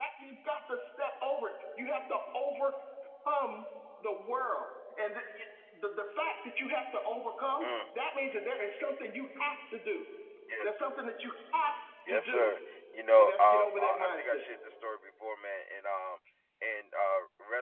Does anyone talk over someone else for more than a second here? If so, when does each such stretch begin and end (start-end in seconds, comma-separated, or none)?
13.2-14.4